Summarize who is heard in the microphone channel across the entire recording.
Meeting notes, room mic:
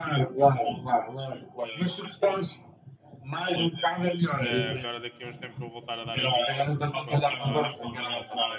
both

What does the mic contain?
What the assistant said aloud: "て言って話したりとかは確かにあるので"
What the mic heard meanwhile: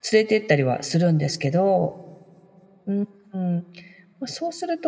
user only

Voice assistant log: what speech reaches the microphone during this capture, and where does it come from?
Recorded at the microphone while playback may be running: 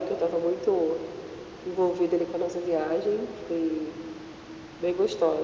echo only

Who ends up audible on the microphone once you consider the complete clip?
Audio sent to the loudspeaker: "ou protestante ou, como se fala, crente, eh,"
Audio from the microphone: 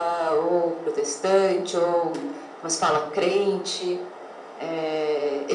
echo only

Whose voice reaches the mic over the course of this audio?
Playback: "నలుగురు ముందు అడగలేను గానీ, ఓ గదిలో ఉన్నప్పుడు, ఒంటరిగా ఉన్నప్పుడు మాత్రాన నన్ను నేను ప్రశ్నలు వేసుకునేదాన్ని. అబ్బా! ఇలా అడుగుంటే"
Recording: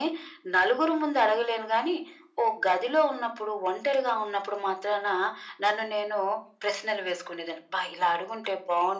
echo only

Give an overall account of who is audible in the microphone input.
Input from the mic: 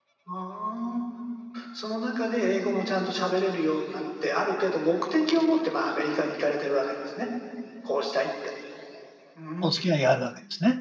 both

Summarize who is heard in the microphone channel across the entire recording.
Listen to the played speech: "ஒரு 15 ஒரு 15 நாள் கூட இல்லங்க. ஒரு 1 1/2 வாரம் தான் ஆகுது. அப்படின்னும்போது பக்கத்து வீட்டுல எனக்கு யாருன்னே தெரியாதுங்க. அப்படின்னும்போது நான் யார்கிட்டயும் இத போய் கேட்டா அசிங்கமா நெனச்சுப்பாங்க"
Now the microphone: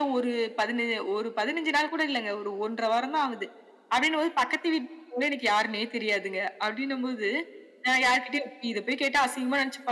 echo only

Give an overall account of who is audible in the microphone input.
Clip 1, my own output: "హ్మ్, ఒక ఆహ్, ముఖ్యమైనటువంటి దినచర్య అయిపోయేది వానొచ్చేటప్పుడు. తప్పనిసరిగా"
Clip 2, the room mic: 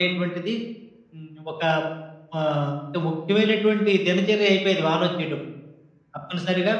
echo only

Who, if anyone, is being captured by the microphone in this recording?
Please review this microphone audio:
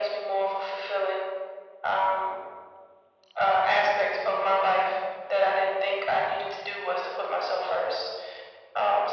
echo only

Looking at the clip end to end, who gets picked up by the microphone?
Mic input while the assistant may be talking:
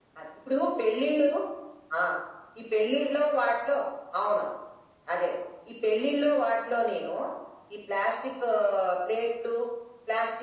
echo only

